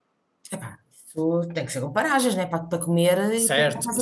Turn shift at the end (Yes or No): Yes